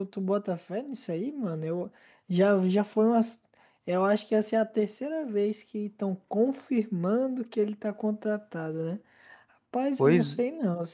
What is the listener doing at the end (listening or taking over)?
listening